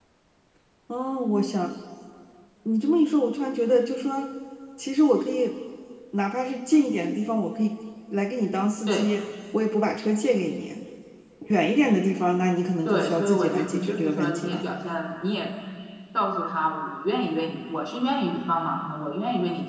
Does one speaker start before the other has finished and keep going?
Yes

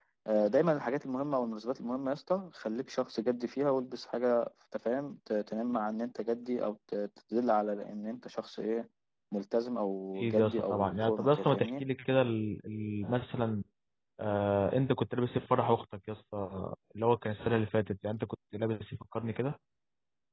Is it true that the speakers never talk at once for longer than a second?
No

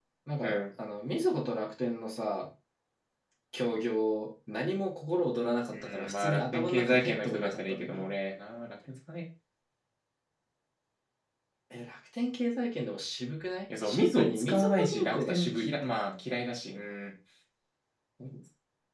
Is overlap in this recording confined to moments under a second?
No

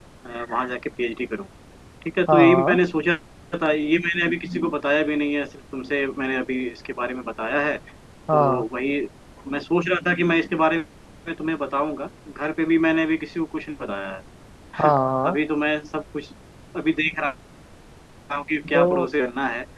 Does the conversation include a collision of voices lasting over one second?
No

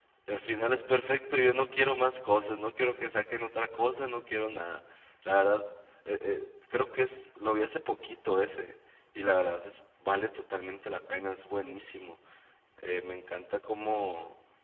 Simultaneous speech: No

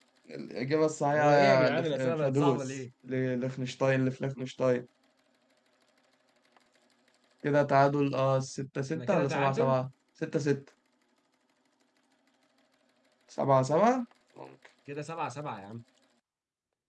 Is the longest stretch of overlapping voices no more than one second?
No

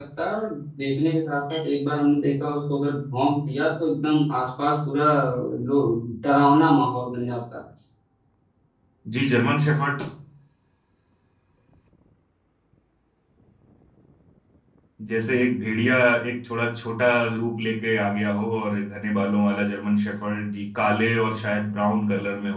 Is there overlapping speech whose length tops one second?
No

